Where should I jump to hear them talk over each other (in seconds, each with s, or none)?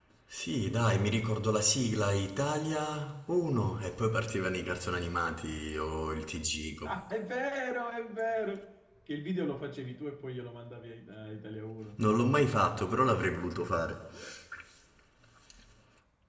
none